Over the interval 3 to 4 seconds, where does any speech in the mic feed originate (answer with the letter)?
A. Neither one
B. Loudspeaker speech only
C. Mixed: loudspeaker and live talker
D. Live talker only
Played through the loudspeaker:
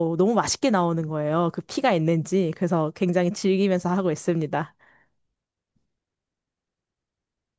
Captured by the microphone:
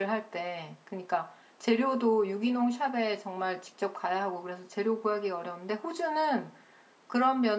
D